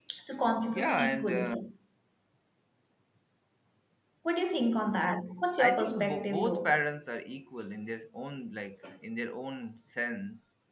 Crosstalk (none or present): present